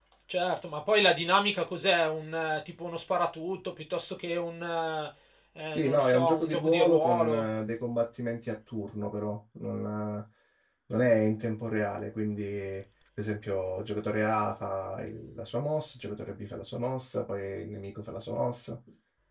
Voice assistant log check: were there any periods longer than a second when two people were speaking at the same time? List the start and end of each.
5.7-7.5

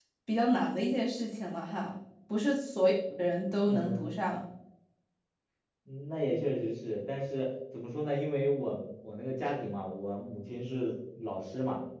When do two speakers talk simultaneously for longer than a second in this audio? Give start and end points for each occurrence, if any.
none

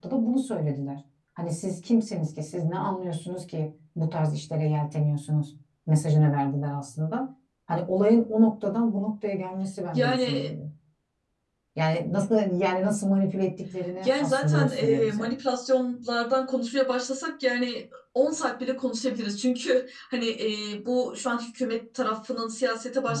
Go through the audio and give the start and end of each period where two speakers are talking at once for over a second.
14.0-15.3

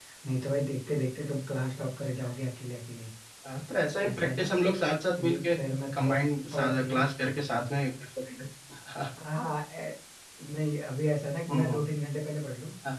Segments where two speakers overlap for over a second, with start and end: none

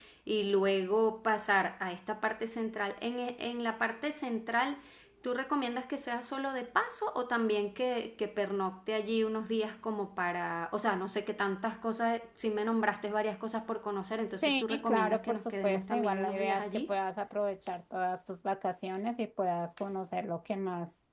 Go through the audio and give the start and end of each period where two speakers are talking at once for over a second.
14.4-16.9

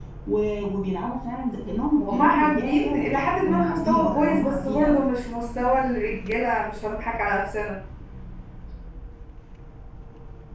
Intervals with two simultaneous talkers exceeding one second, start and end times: 2.0-5.0

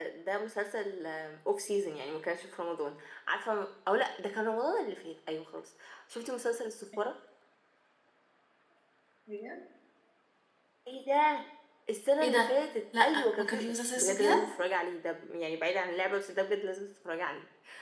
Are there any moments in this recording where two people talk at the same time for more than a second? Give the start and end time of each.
13.0-14.4

